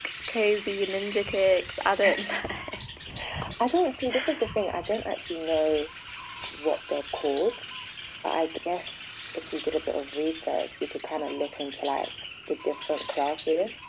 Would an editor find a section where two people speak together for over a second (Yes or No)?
No